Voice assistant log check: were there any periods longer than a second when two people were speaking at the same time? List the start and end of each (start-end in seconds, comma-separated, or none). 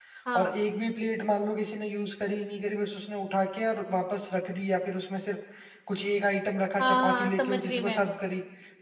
6.8-8.0